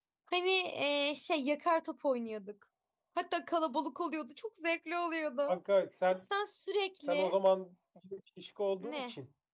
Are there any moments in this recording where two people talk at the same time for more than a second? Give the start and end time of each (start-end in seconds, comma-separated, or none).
none